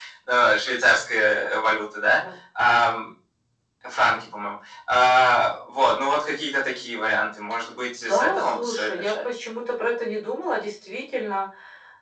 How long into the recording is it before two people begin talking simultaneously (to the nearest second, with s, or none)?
8 s